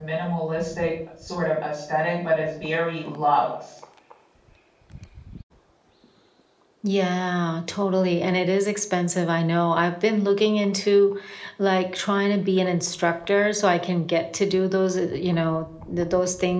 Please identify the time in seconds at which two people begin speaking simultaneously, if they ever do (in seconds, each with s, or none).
none